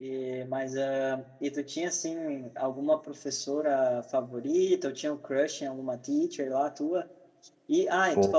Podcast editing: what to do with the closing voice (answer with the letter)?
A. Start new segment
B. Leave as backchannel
B